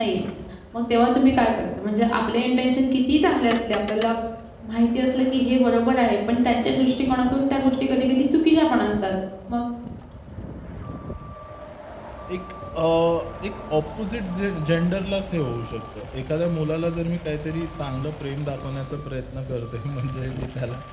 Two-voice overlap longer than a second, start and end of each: none

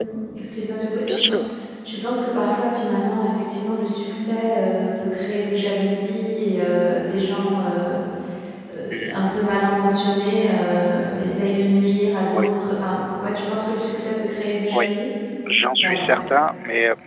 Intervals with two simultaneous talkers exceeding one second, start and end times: none

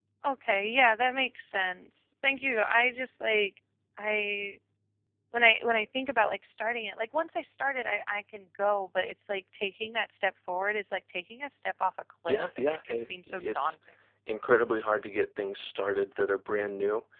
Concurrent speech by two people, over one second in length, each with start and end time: 12.3-13.8

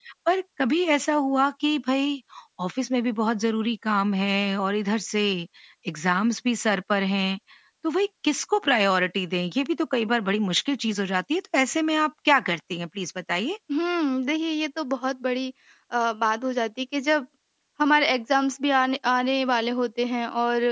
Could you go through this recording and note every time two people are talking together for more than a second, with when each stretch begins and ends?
none

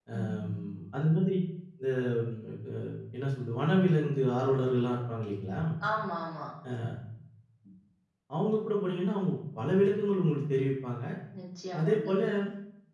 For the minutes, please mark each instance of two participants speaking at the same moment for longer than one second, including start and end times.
none

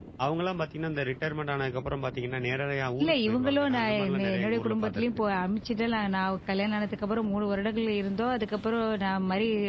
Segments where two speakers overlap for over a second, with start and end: 3.0-5.1

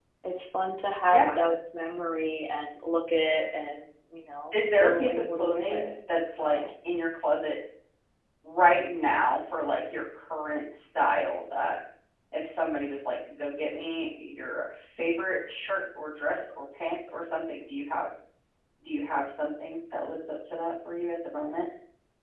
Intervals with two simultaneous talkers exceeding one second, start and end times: 4.5-5.9

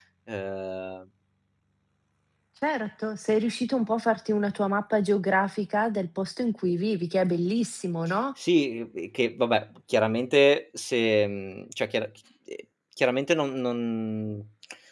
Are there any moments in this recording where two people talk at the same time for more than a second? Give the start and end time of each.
none

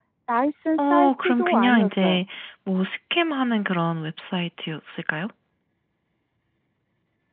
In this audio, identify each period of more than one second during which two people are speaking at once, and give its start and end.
0.8-2.2

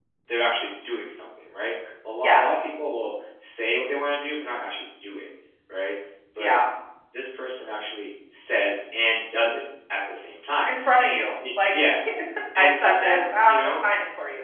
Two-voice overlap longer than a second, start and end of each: 12.6-13.8

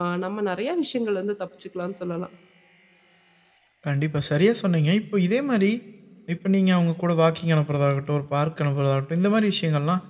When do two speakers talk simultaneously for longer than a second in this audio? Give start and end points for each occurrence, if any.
none

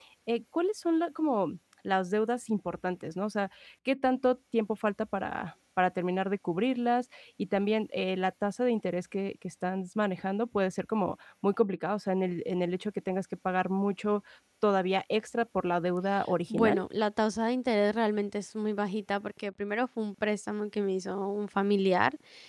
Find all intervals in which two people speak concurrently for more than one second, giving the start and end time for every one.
none

